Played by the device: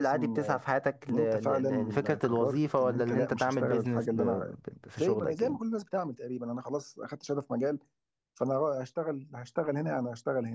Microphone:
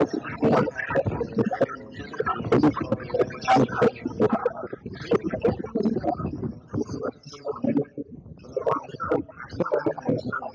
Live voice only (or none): none